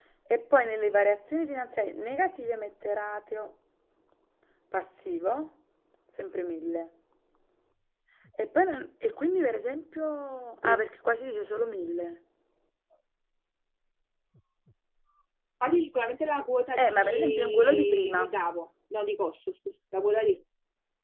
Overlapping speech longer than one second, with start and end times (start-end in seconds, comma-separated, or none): 16.8-18.4